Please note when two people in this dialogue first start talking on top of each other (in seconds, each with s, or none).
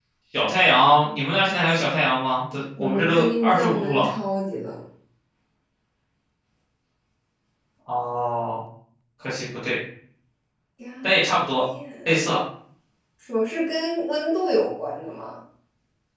2.8 s